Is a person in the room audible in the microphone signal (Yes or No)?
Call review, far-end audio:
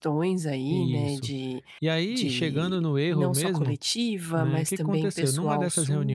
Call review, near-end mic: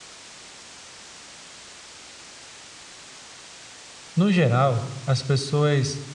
Yes